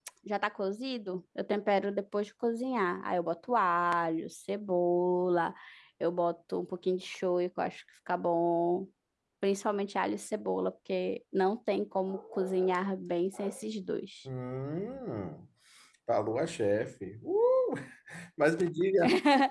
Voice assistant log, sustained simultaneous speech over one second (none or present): none